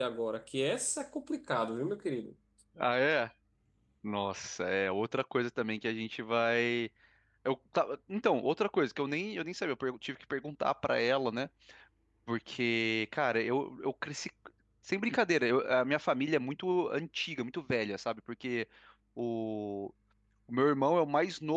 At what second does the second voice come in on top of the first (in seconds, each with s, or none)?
none